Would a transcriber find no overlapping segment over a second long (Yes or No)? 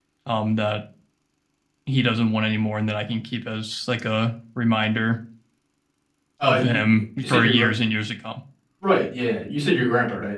No